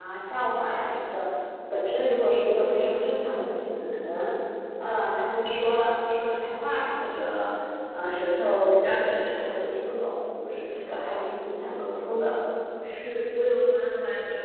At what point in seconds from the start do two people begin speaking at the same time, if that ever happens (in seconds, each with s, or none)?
none